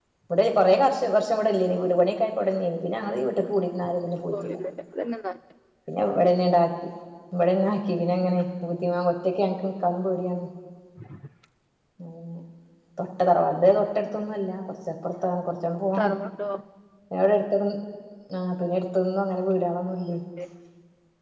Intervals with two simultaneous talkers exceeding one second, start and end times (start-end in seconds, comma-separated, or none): none